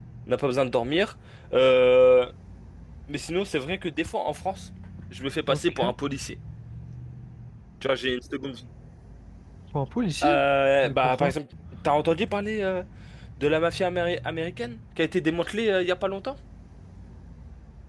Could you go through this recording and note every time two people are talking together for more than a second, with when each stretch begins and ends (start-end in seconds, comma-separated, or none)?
none